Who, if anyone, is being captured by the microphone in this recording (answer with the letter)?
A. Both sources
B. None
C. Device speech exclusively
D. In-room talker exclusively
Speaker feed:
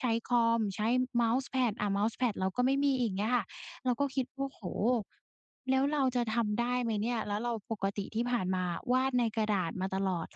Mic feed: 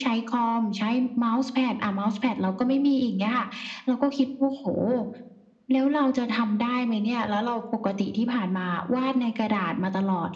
C